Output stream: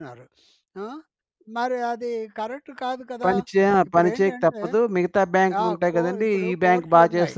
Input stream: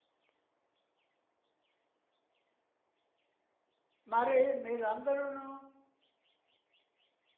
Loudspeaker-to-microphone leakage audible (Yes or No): No